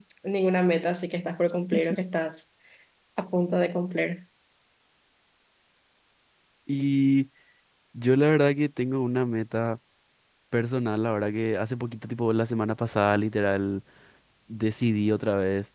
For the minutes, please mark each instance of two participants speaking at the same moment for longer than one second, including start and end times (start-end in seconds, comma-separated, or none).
none